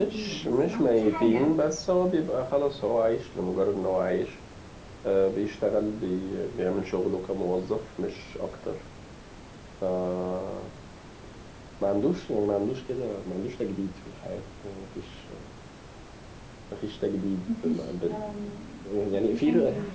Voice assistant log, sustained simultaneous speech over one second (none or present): present